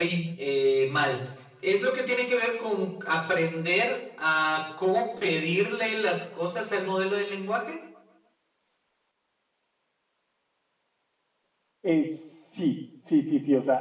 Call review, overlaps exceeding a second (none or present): none